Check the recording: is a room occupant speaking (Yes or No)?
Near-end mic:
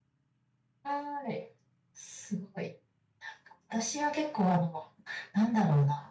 Yes